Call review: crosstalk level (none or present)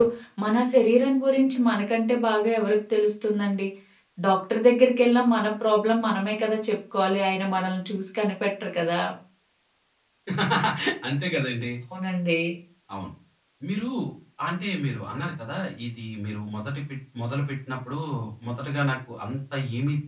none